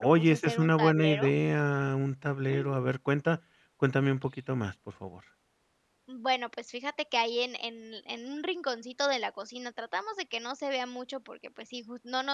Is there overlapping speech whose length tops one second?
Yes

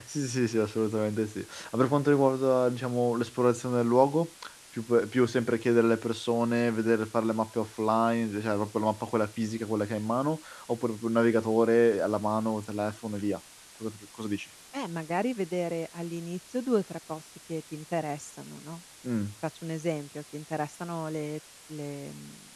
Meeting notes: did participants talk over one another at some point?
No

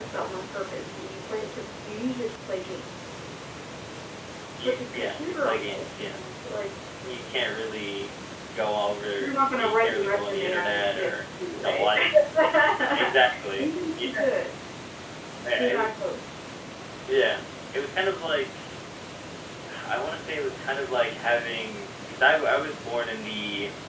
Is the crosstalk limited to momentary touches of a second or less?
No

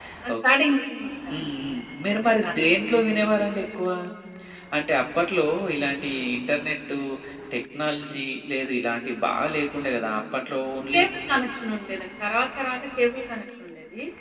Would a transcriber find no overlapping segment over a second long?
Yes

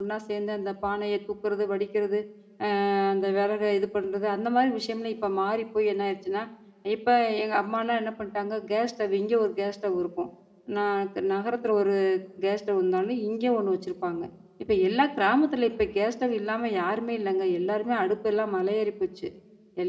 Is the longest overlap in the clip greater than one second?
No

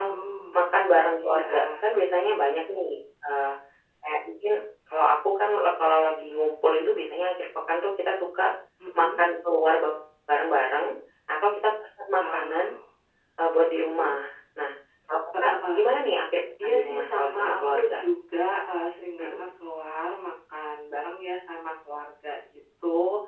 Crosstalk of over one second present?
Yes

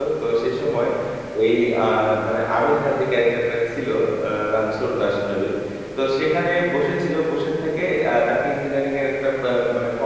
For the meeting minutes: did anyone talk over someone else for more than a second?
No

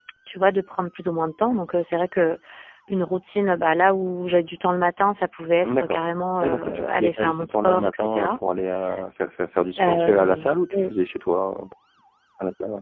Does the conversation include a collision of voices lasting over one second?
Yes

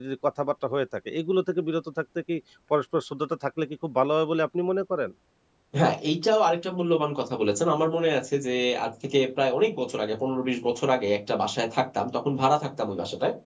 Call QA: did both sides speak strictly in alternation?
Yes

